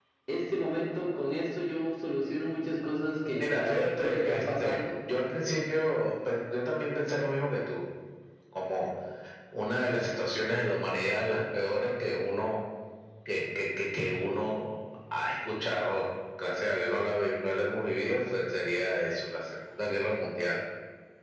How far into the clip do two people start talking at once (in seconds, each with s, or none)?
3.4 s